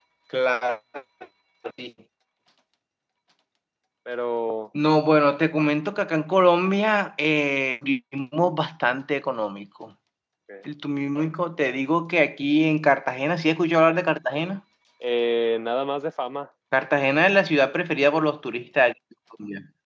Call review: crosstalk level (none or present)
none